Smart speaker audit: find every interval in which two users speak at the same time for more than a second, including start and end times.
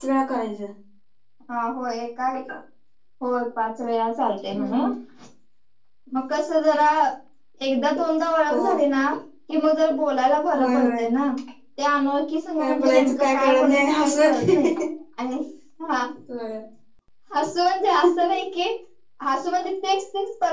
12.6-14.5

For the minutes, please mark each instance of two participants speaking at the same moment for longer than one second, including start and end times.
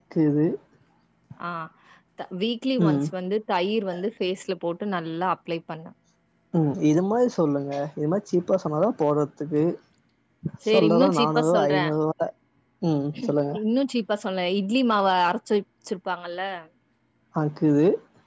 10.7-11.9

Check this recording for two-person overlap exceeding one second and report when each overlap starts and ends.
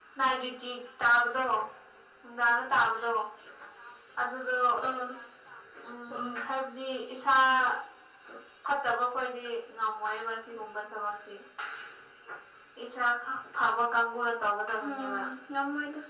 none

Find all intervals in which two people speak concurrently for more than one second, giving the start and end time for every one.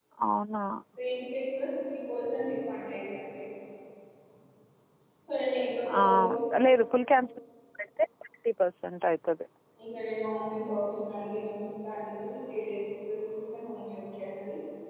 none

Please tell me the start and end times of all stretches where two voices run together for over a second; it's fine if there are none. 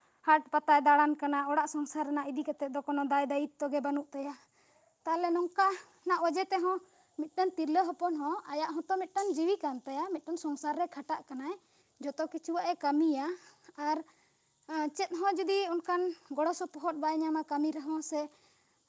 none

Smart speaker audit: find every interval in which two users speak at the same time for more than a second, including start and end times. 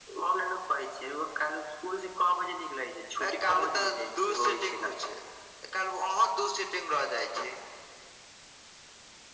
3.2-5.0

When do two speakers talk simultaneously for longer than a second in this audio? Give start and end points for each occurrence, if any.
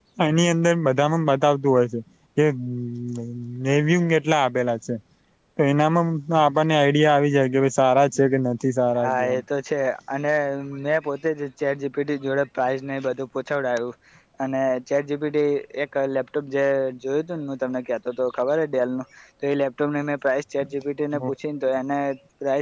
none

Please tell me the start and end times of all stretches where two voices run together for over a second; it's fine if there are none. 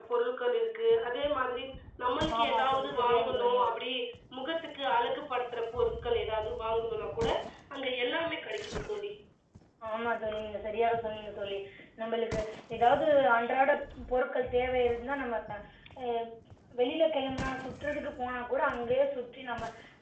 2.4-3.7

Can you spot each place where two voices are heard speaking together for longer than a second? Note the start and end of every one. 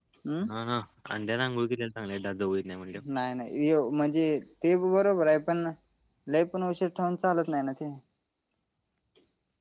none

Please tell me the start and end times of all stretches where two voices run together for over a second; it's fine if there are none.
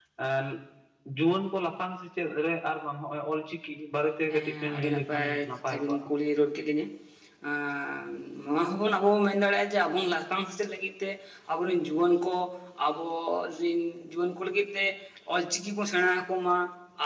4.5-6.0

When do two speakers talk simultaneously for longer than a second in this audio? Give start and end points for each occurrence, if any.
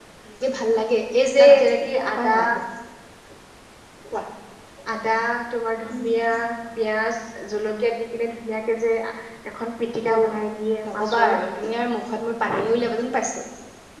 none

